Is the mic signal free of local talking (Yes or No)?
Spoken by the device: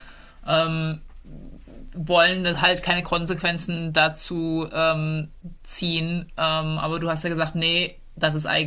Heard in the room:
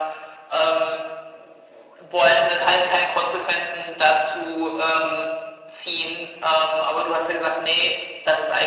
Yes